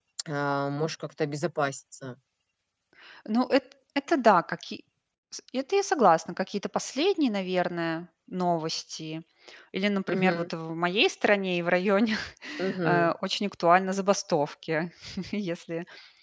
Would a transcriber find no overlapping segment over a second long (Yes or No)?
Yes